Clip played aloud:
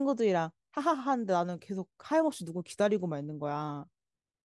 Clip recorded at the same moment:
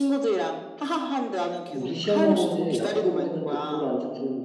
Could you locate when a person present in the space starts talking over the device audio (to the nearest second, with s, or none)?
2 s